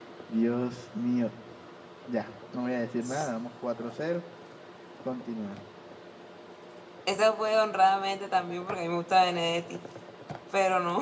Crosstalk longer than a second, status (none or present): none